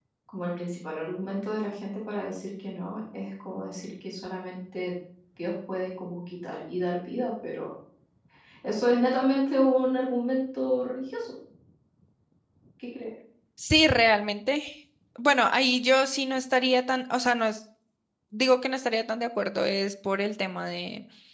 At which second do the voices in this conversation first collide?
none

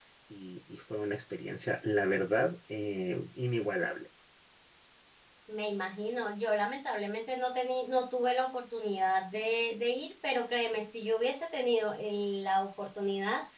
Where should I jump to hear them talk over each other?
none

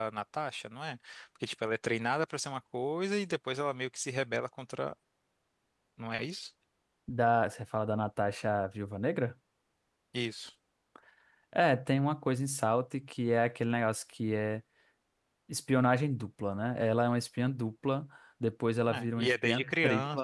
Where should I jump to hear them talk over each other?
18.9 s

